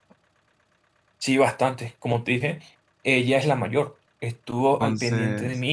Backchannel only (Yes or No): Yes